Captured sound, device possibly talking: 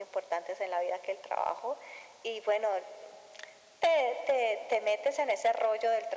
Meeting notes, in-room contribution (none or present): none